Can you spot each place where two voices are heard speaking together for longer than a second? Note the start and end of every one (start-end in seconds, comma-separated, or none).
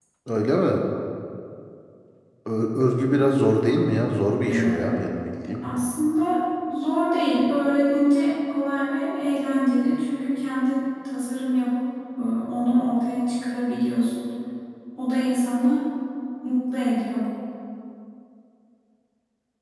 none